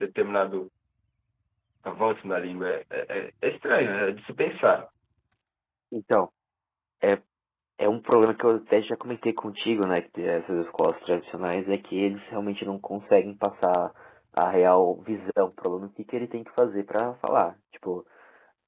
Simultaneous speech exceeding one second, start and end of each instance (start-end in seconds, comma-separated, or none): none